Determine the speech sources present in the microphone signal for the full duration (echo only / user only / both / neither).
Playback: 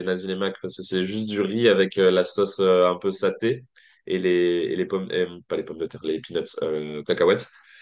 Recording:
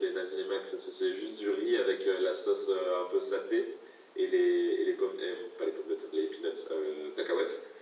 echo only